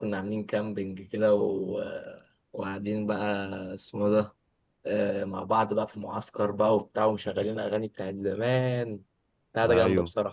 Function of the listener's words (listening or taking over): taking over